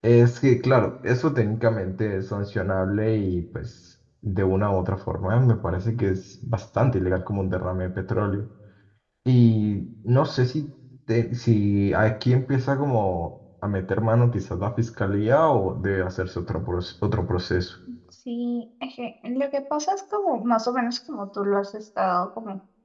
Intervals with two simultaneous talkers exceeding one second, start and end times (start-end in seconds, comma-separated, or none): none